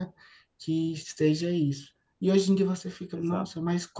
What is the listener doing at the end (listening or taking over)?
listening